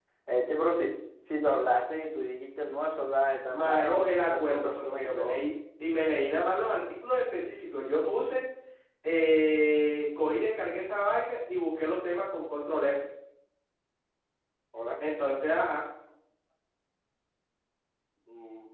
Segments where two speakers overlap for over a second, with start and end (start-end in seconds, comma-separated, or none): 3.5-5.4